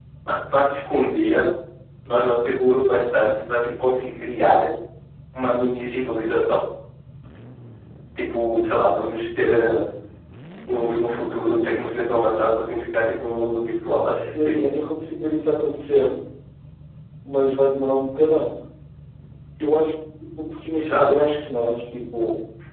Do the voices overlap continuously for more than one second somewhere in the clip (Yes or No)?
No